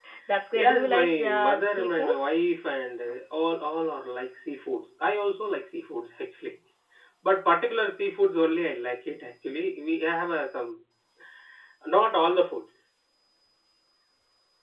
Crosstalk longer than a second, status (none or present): present